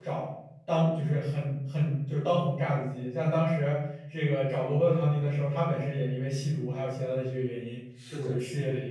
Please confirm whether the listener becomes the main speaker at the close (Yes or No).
No